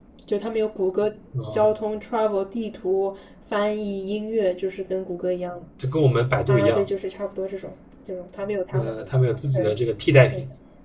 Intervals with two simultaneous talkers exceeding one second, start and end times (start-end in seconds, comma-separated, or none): none